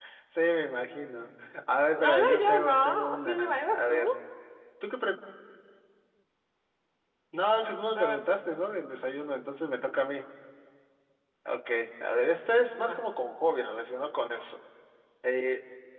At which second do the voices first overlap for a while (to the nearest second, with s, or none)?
2 s